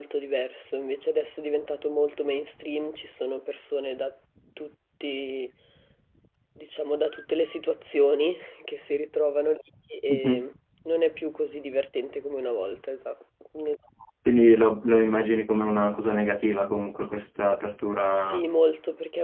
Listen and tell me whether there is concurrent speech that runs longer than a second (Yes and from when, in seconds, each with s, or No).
No